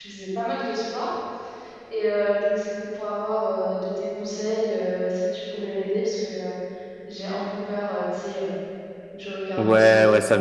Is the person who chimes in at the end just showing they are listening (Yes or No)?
No